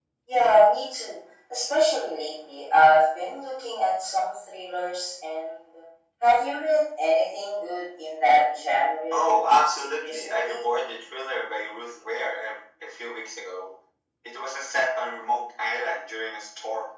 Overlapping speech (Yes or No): Yes